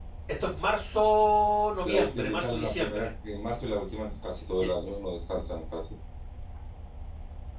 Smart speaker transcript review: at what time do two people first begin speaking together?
1.8 s

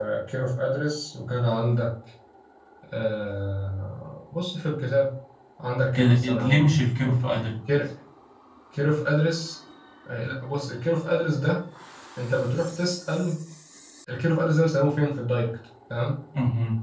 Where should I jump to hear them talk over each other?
5.9 s

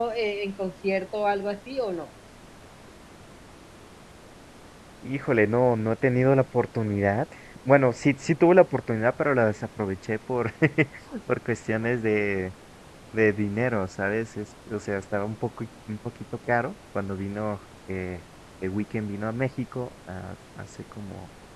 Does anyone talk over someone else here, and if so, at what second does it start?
none

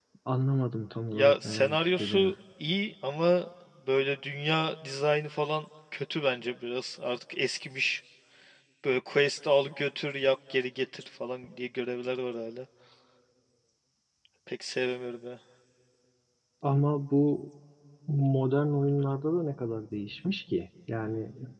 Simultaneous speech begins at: 1.1 s

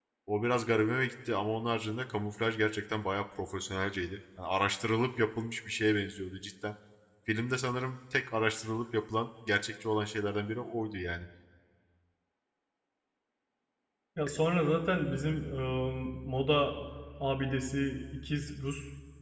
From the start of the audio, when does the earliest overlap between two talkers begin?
none

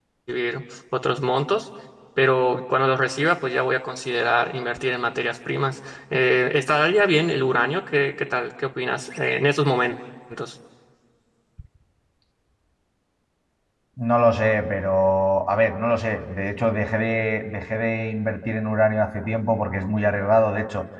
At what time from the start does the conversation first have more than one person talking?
none

